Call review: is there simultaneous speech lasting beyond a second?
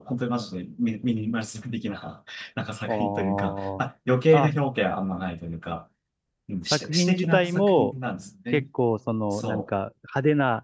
Yes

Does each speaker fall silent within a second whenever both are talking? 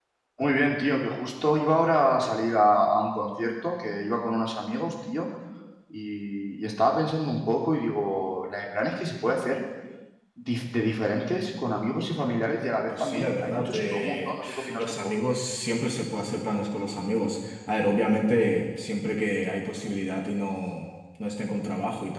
No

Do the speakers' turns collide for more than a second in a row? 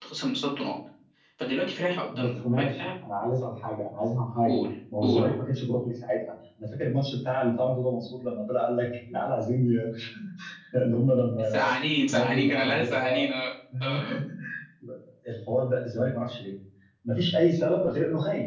Yes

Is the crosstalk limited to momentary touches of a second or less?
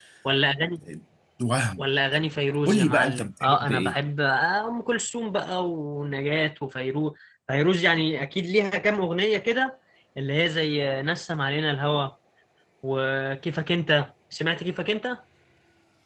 No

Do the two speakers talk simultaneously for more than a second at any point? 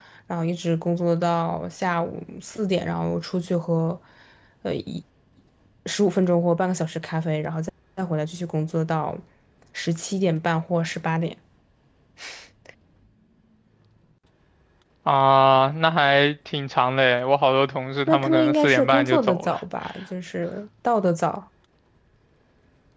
Yes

